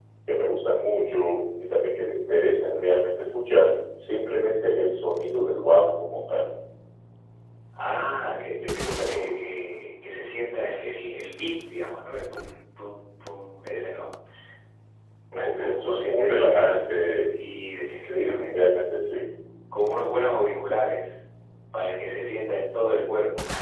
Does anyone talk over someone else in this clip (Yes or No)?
Yes